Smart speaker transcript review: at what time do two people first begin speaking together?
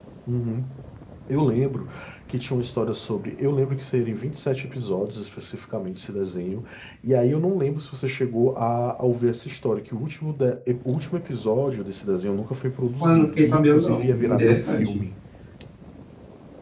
13.0 s

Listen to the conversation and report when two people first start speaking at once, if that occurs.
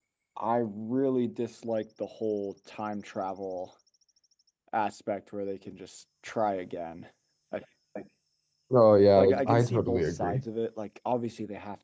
9.2 s

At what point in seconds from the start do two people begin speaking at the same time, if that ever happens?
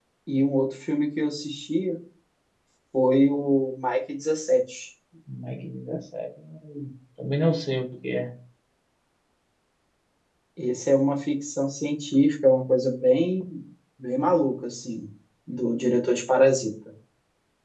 none

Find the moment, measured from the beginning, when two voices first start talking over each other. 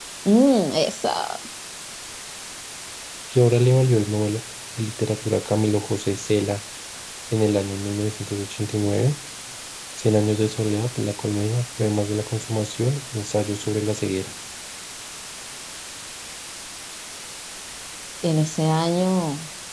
none

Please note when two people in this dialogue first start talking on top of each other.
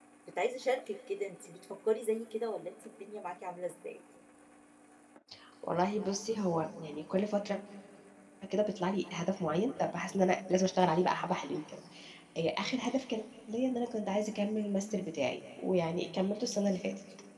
none

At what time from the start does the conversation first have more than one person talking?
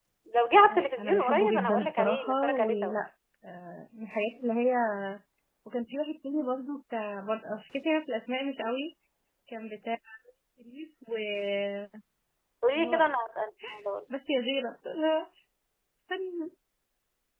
0.7 s

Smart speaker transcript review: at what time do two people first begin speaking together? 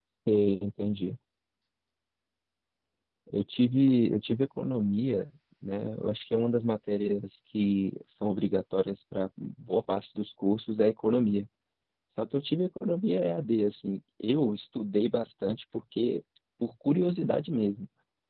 none

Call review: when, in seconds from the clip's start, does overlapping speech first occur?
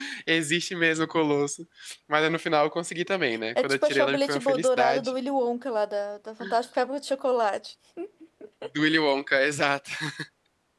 3.6 s

